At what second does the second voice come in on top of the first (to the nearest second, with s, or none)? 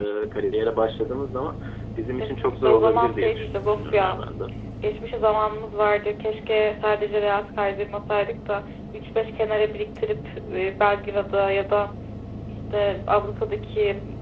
2 s